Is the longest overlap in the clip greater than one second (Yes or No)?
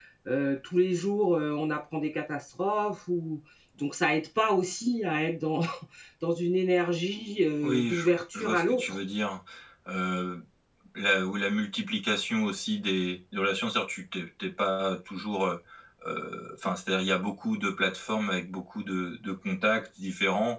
Yes